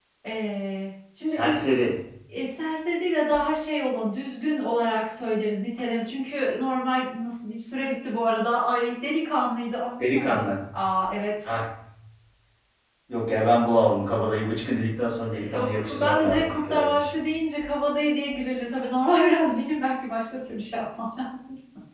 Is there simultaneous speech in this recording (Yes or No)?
Yes